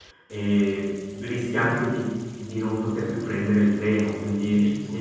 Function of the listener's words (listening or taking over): taking over